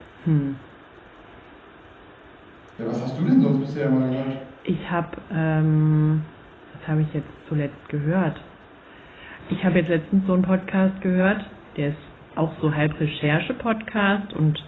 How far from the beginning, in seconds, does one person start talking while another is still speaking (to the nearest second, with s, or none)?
none